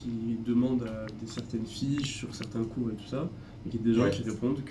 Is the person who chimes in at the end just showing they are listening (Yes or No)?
Yes